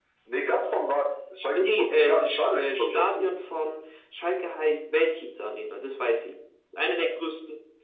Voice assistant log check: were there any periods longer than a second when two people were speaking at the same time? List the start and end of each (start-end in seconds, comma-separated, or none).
1.5-3.3